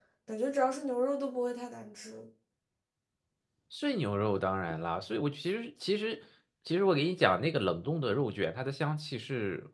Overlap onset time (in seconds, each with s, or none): none